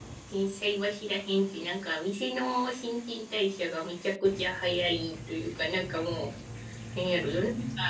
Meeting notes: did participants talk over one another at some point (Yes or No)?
No